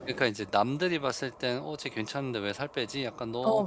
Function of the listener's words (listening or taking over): listening